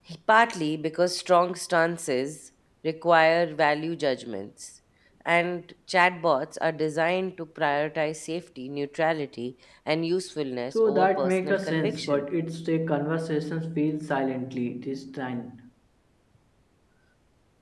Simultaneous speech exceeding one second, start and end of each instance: 10.8-12.2

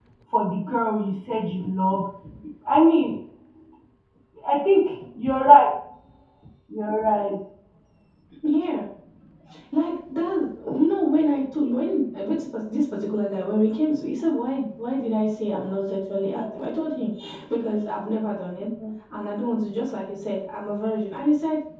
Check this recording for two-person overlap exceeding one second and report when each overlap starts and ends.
none

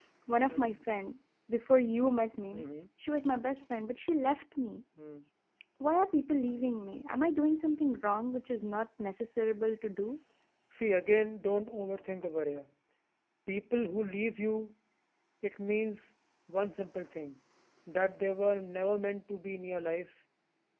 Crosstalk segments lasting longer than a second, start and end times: none

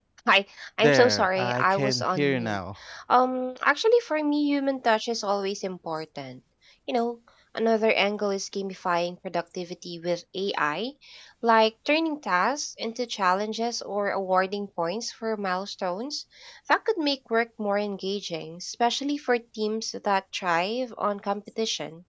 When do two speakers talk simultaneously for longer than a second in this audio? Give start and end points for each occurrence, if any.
0.8-2.6

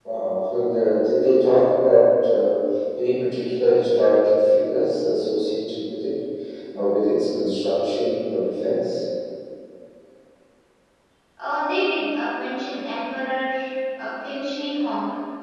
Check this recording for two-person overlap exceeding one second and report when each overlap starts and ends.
none

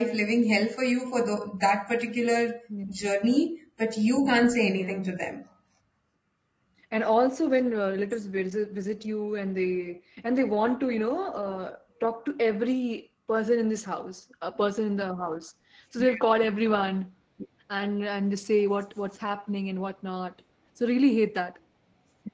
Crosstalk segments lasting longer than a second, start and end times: none

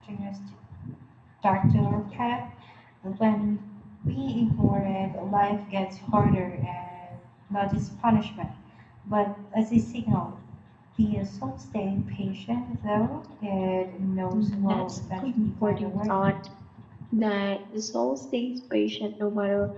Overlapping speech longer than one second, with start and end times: 14.3-16.2

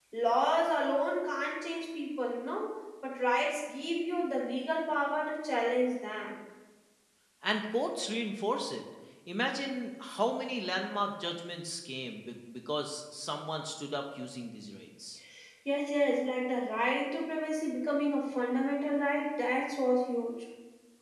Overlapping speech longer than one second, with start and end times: none

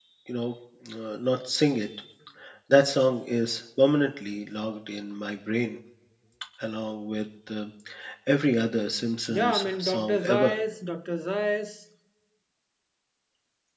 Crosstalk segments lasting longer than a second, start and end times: 9.3-10.5

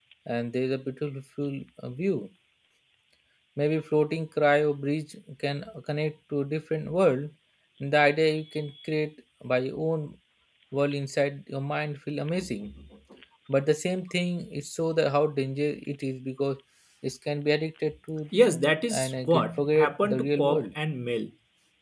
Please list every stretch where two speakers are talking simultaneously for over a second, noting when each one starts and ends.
18.9-20.7

